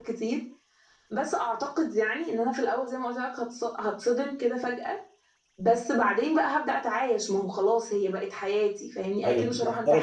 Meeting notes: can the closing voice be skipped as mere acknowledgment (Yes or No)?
No